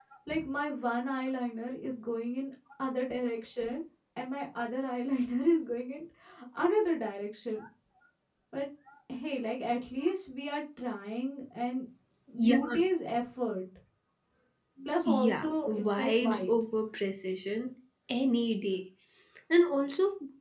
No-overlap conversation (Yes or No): No